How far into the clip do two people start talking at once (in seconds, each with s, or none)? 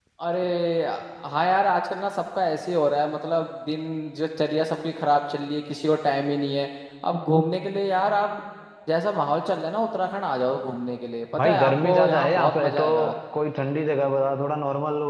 11.4 s